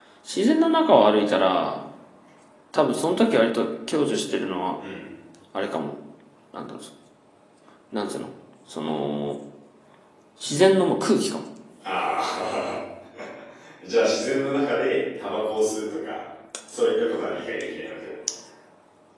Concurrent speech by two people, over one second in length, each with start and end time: none

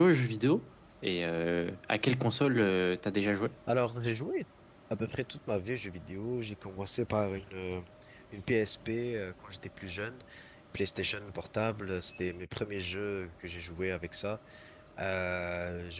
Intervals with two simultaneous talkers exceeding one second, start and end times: none

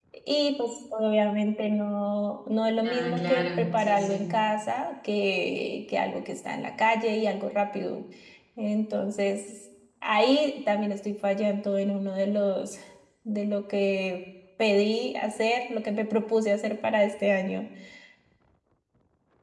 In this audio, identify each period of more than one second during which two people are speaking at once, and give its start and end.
2.8-4.3

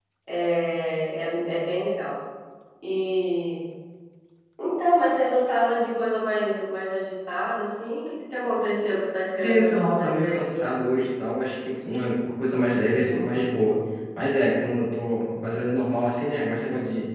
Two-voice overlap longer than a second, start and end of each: 9.4-10.8

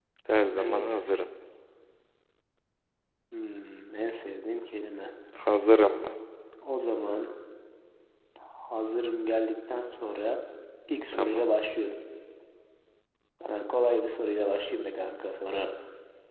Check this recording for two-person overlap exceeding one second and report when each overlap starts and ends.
none

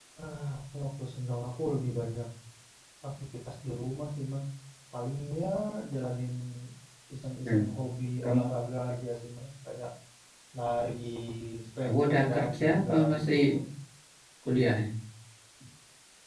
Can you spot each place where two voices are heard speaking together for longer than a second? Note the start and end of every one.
11.8-13.4

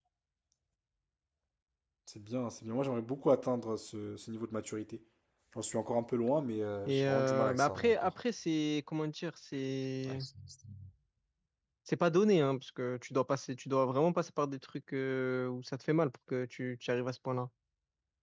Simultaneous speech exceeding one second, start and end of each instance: 6.9-8.1

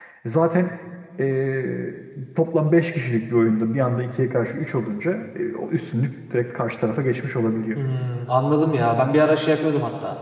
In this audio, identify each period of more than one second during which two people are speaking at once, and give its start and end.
none

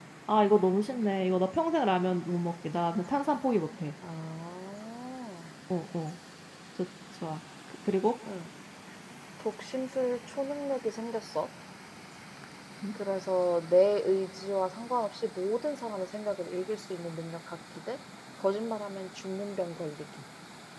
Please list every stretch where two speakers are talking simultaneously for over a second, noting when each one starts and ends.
none

